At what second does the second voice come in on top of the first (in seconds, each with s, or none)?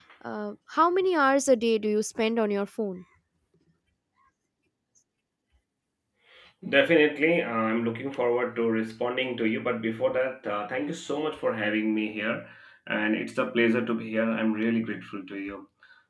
none